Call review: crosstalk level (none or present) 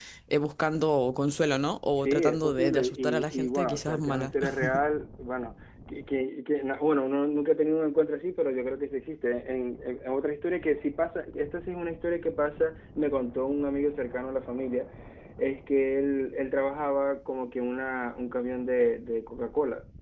present